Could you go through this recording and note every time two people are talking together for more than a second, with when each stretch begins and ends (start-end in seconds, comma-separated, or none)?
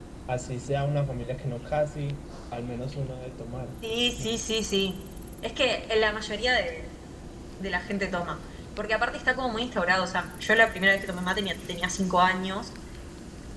none